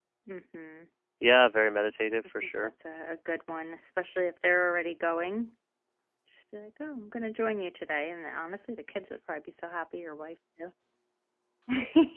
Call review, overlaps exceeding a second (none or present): none